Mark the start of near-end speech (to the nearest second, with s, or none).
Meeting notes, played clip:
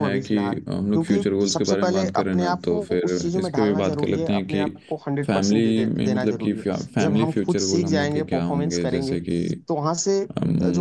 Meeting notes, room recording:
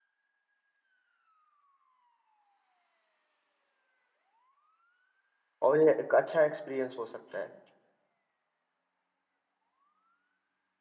6 s